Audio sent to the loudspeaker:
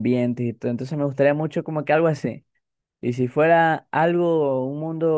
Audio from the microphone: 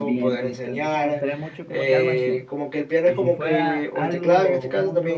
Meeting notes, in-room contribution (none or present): present